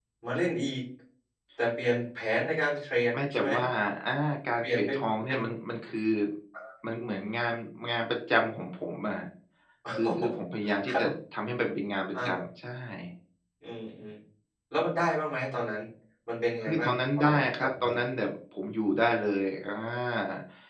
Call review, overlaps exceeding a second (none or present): present